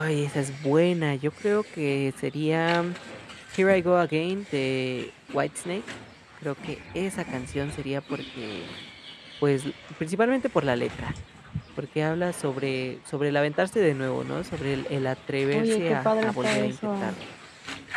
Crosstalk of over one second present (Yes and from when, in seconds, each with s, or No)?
Yes, from 15.5 s